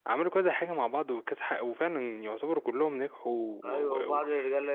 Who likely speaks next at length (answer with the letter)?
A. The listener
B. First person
A